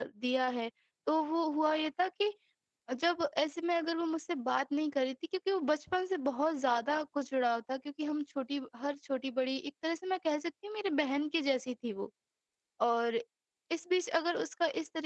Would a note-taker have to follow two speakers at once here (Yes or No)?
No